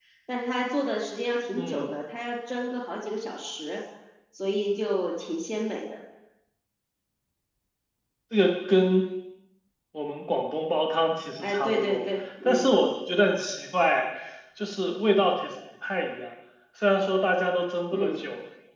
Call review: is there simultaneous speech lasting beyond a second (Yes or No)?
Yes